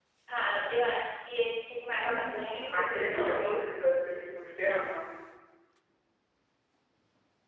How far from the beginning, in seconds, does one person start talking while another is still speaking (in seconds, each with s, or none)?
1.9 s